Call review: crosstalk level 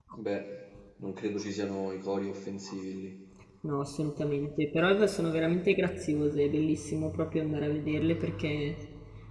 none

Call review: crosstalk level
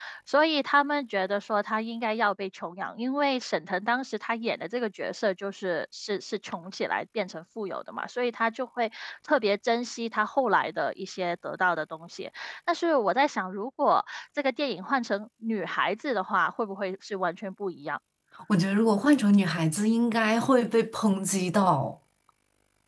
none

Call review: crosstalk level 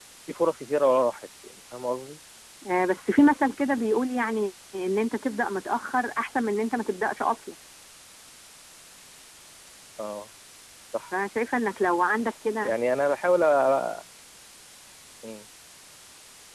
none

